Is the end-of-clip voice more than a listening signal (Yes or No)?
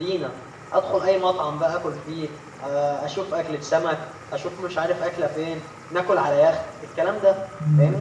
Yes